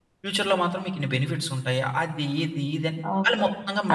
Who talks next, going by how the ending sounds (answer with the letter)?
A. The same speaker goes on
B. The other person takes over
B